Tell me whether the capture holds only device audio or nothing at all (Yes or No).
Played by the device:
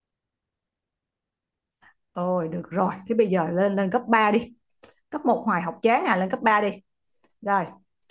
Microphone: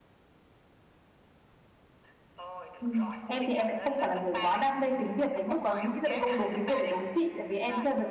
No